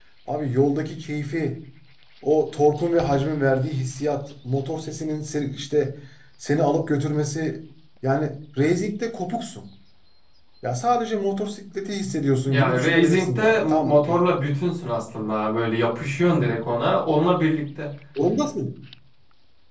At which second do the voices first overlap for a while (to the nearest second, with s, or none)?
12 s